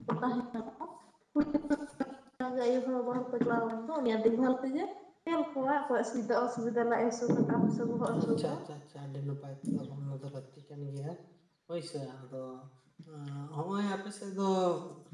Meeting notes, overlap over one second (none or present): none